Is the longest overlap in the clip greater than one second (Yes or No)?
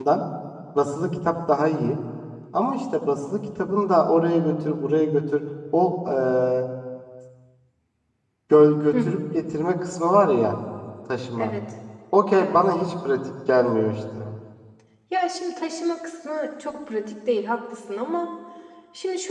No